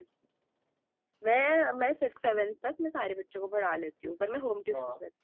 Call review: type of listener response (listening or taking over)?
taking over